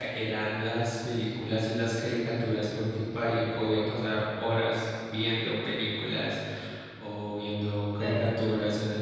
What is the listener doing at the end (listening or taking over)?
listening